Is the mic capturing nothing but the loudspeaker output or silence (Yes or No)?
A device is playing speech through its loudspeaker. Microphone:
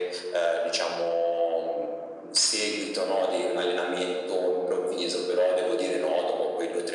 Yes